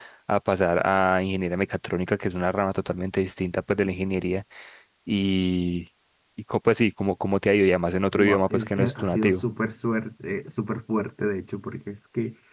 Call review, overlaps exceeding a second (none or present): present